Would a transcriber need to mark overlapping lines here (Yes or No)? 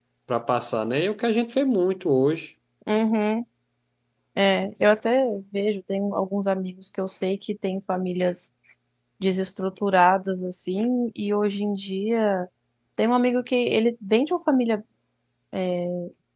No